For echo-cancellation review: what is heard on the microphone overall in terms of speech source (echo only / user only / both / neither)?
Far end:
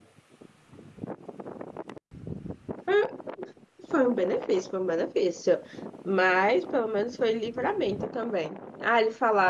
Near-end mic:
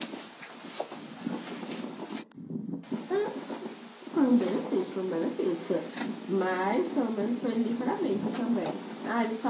echo only